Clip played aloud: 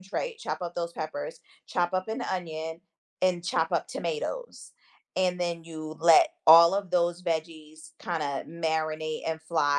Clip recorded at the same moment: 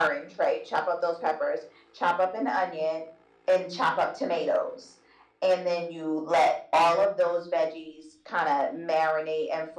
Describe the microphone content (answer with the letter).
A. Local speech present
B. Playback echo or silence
B